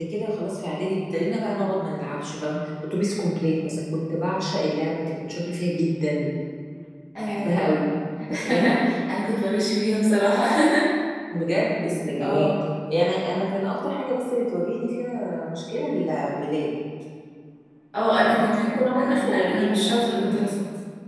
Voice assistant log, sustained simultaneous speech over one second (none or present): present